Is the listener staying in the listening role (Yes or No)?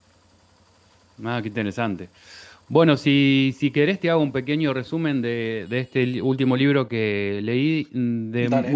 Yes